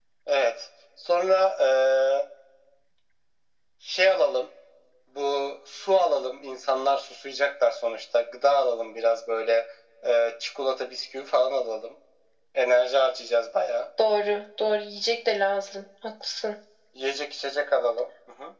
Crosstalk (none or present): none